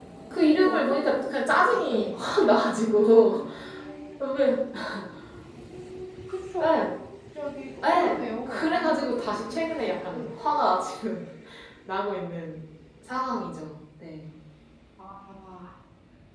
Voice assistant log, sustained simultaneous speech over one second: present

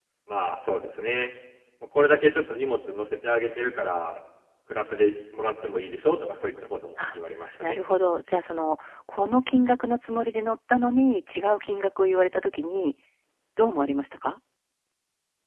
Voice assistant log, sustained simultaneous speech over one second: none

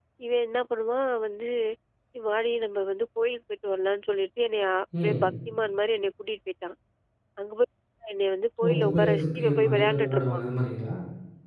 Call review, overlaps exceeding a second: present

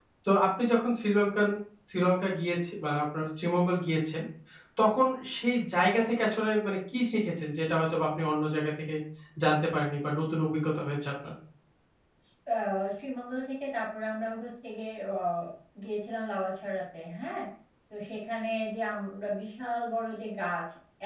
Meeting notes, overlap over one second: none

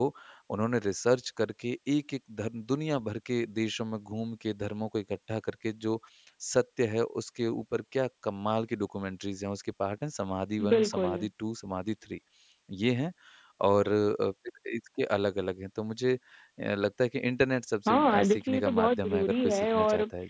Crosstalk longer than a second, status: present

